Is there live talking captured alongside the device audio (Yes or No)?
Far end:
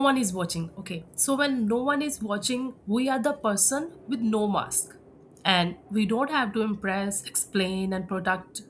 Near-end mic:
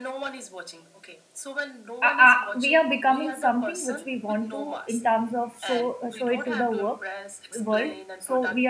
Yes